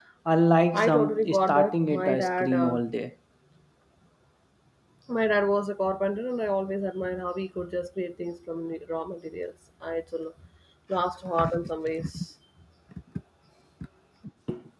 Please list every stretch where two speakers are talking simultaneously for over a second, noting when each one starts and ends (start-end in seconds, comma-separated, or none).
0.7-2.8